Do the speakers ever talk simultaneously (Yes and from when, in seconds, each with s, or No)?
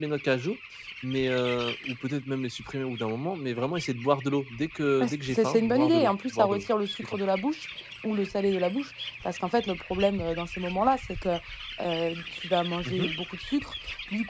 Yes, from 5.0 s